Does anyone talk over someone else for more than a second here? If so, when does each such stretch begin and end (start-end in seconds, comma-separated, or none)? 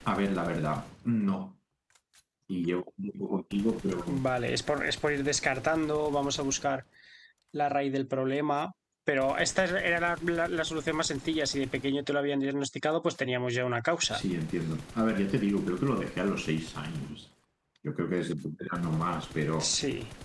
none